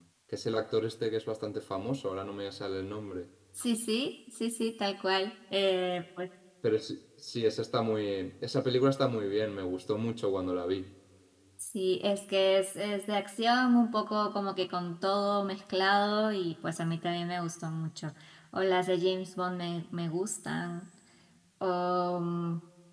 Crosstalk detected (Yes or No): No